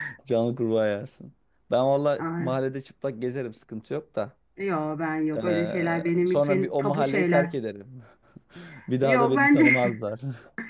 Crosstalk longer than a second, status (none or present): present